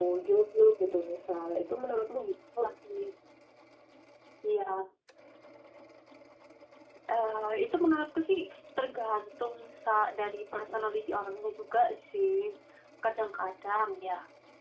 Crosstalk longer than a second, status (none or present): none